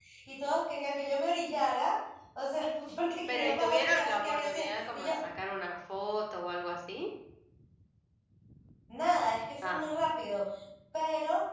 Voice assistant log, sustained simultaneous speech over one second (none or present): present